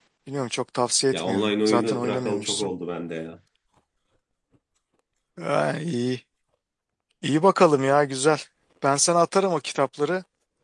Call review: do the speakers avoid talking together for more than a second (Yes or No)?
No